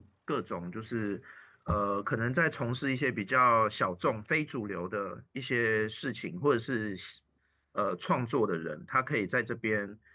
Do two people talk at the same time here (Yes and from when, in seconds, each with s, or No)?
No